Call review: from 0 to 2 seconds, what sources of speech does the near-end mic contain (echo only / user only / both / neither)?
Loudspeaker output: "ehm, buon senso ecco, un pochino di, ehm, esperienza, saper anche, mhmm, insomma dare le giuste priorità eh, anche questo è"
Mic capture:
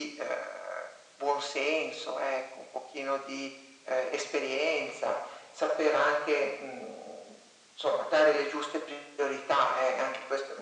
echo only